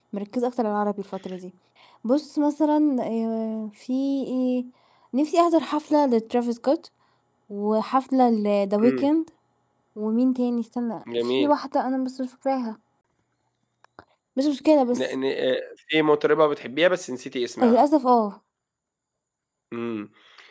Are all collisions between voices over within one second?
Yes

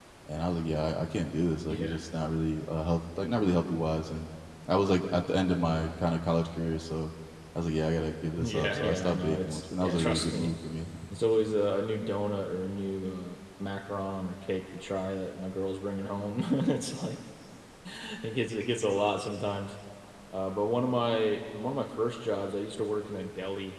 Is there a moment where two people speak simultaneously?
Yes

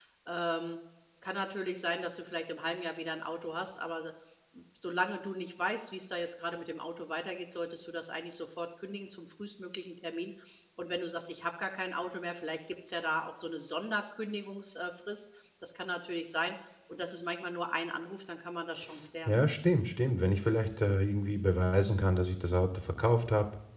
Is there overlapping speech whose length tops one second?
No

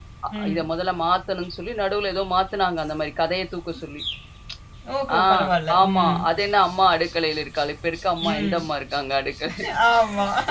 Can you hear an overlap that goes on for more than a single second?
No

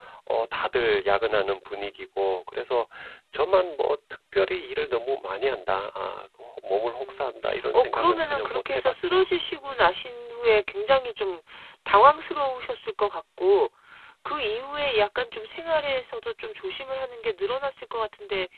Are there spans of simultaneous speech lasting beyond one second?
Yes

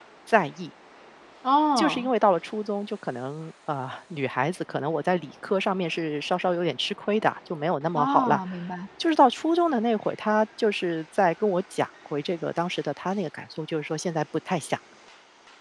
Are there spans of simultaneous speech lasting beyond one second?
No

